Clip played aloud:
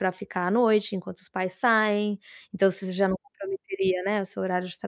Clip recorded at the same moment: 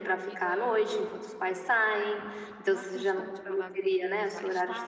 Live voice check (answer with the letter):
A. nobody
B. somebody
B